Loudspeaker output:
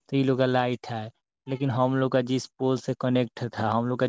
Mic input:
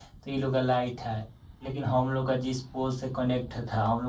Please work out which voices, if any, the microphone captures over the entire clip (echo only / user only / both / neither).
echo only